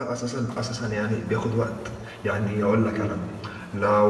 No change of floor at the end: Yes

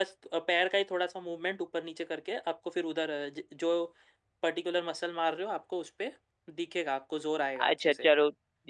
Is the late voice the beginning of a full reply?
Yes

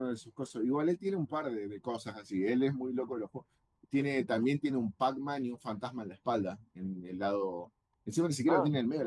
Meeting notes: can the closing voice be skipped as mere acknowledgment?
Yes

